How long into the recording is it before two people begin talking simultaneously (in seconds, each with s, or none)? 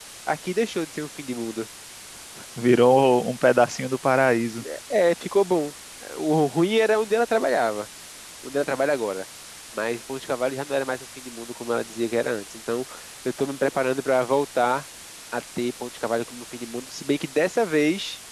none